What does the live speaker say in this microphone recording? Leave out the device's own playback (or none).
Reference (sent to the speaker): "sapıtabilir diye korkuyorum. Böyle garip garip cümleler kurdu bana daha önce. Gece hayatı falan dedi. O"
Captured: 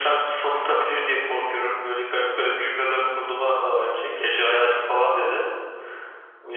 none